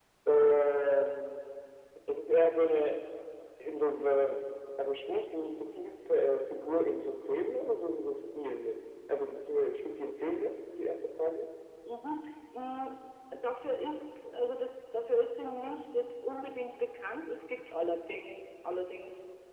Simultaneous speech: No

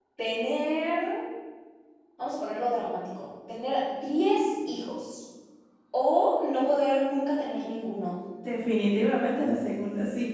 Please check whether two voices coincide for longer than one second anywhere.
No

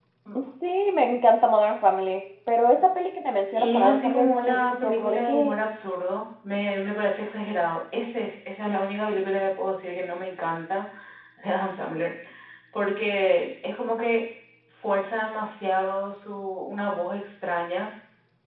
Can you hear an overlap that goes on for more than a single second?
Yes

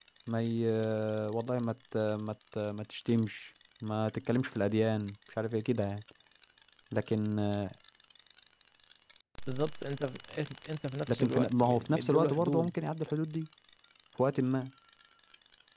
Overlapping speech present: Yes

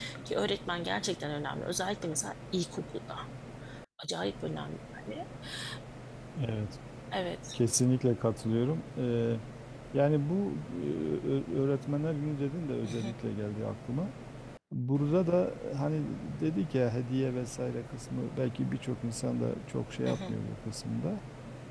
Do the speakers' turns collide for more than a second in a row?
No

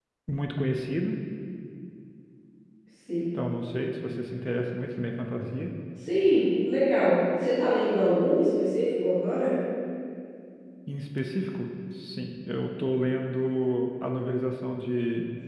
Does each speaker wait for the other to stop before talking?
Yes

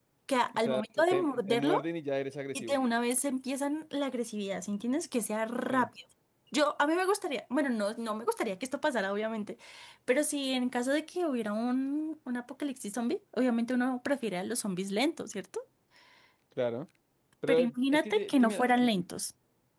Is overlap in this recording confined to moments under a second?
No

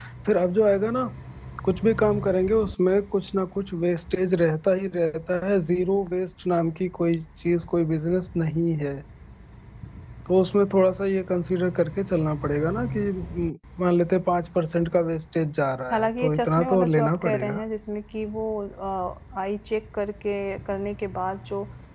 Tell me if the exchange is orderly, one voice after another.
No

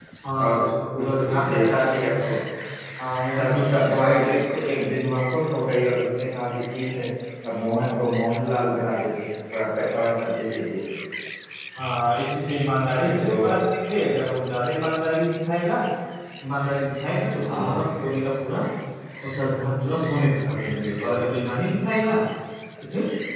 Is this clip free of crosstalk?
No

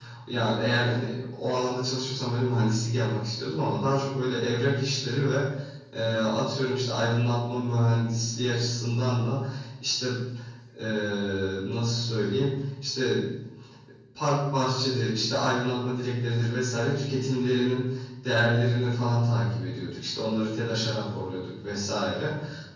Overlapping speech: No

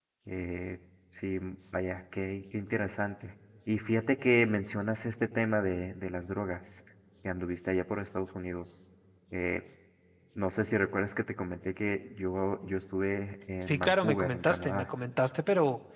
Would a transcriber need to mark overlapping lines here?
Yes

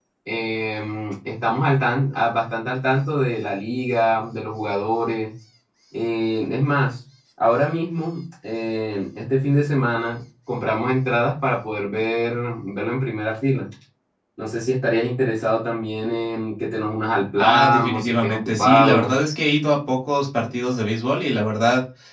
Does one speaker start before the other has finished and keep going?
Yes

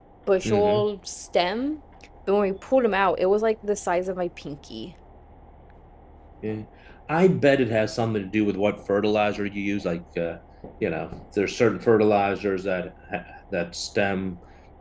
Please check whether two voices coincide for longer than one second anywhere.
No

